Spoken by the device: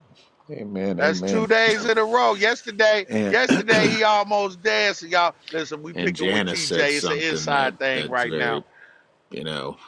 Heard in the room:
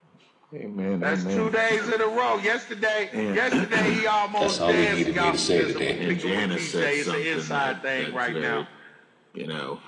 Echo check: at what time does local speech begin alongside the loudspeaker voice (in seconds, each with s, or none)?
4.4 s